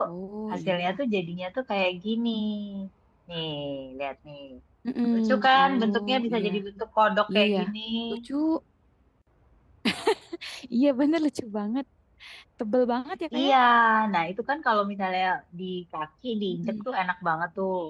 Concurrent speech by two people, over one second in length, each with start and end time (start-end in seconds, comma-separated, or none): 5.1-6.5